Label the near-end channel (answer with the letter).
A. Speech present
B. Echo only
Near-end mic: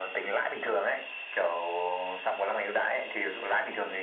B